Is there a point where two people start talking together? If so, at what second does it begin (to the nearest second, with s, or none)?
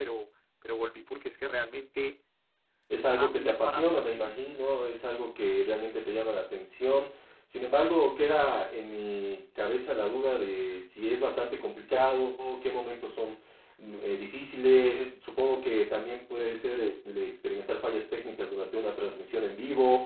3 s